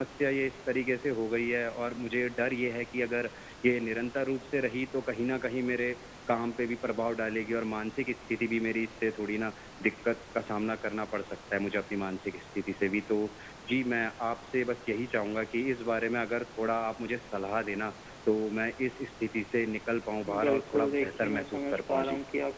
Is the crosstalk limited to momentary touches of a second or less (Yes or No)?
No